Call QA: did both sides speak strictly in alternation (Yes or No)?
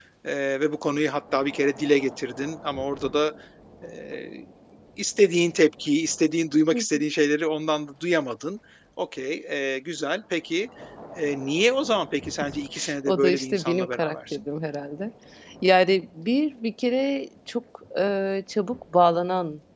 No